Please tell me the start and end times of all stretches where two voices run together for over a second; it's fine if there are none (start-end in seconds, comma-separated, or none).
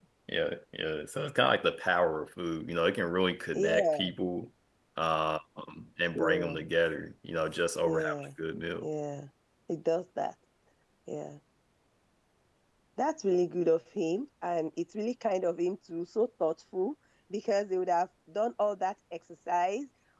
none